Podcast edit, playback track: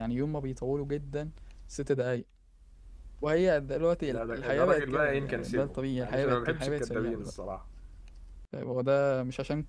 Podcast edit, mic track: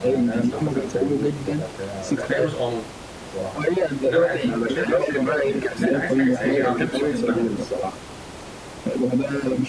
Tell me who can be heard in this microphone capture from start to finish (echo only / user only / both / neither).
both